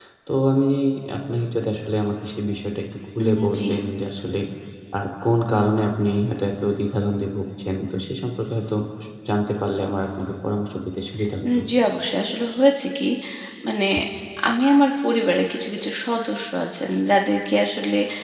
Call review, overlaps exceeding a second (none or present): none